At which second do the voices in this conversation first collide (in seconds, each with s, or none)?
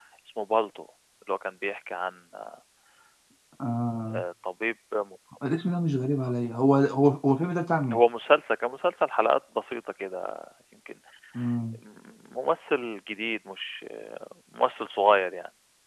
none